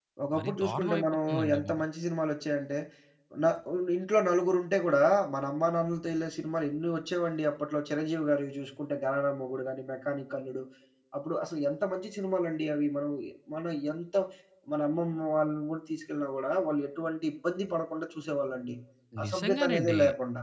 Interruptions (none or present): present